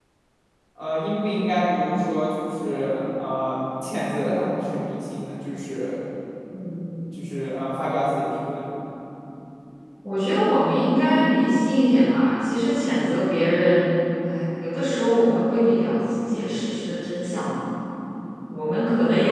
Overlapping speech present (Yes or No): No